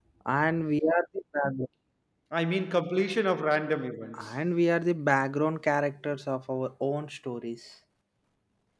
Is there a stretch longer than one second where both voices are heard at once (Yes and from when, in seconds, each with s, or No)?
No